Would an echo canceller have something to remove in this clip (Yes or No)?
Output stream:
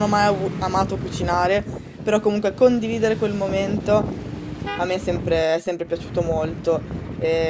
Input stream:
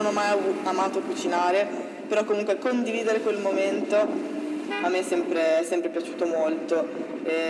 Yes